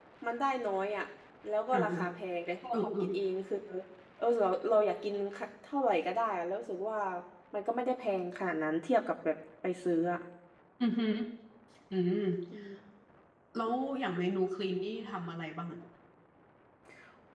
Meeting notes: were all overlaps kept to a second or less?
Yes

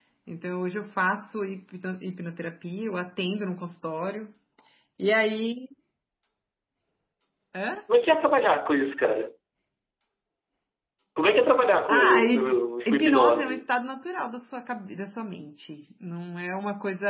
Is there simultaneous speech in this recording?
Yes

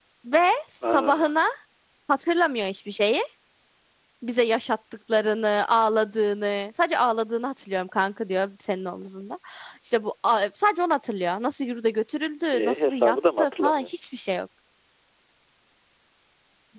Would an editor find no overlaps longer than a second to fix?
No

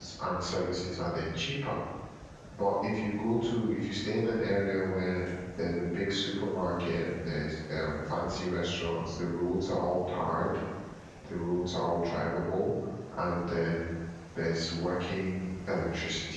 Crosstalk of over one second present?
No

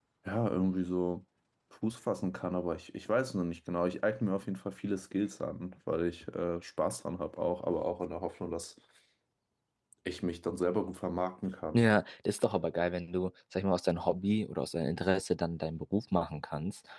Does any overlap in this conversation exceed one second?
No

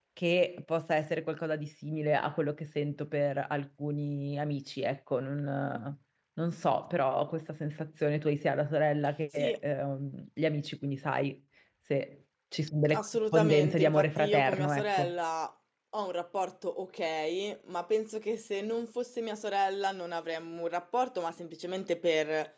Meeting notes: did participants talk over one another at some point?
Yes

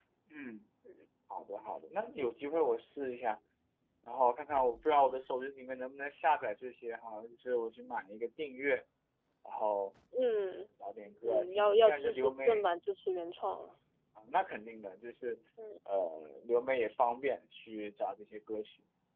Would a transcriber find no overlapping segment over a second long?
No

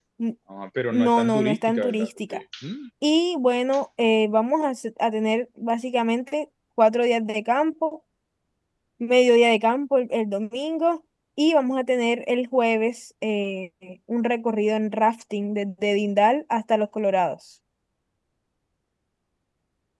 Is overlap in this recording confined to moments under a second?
No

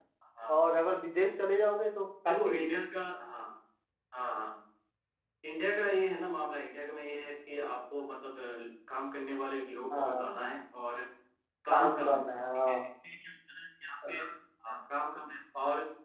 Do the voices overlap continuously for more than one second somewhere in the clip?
No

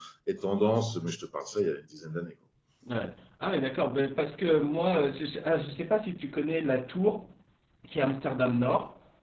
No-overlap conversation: Yes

